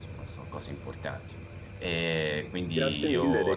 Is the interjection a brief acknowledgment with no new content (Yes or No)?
No